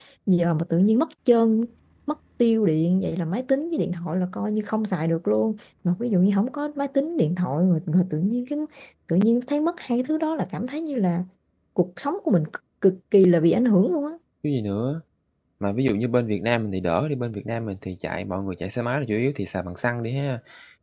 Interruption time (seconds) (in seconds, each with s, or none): none